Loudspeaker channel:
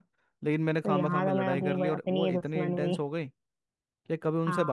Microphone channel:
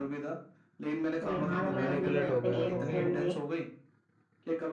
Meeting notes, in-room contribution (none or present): present